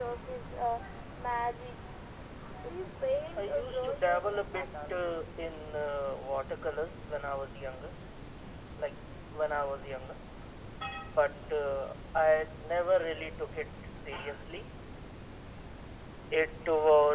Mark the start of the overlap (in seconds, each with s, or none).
3.4 s